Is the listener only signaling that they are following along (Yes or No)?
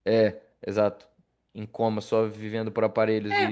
No